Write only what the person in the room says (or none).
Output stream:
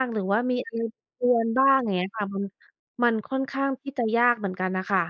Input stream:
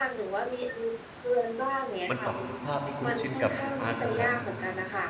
มันปรับสภาพให้คุ้นชินกับอ่าสถา